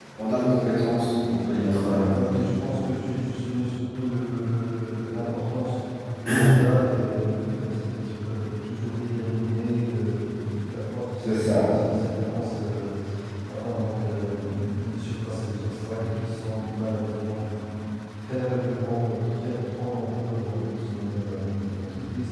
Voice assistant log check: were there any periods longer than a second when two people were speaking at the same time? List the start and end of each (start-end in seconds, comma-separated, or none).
none